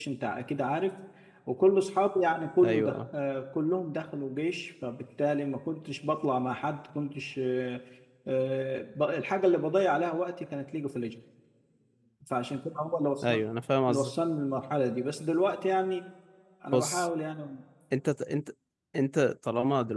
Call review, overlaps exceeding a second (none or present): none